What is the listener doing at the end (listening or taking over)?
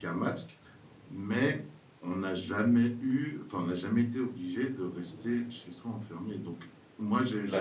listening